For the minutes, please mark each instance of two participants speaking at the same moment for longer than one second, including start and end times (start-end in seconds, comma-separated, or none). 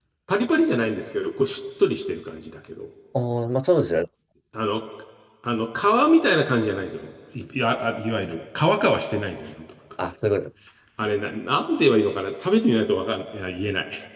none